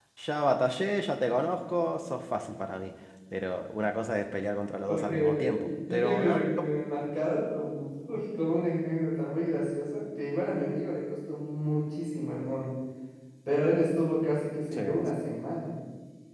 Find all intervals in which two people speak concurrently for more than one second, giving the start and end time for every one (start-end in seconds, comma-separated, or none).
4.9-6.7